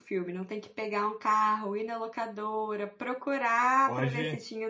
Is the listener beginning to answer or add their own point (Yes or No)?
No